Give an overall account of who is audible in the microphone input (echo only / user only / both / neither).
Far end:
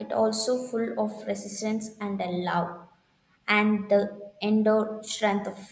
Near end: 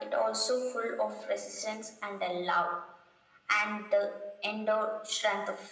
echo only